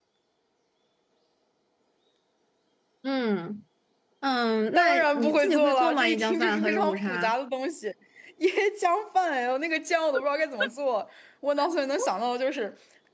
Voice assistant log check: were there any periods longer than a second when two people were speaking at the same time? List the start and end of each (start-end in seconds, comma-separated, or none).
4.8-7.3